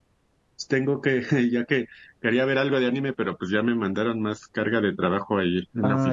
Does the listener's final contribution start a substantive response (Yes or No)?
Yes